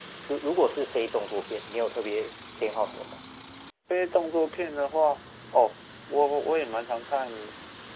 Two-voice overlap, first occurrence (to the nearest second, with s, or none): none